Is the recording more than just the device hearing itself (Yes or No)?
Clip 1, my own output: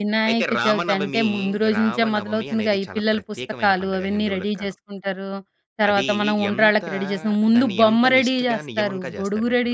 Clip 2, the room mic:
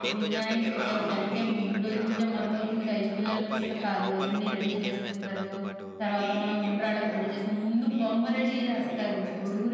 Yes